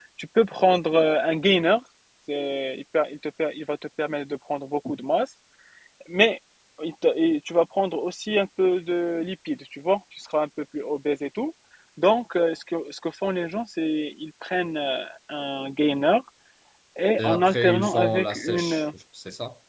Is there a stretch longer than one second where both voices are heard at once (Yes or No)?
Yes